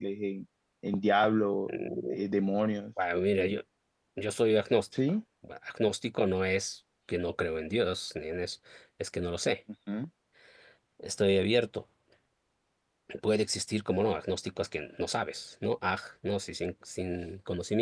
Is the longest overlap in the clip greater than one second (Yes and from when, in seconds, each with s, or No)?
No